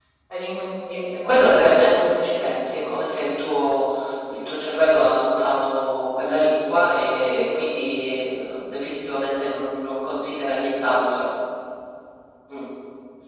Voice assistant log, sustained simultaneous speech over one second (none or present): present